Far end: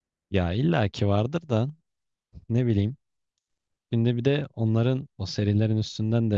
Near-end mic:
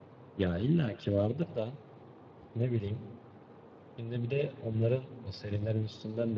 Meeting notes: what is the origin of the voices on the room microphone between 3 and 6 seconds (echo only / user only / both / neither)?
echo only